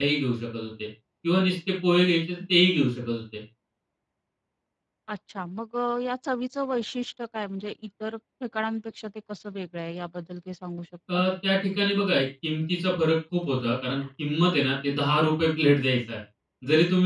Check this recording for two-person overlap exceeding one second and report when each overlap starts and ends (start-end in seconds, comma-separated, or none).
none